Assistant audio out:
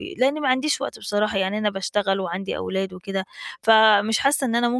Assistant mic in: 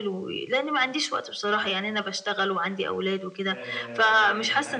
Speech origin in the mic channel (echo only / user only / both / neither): both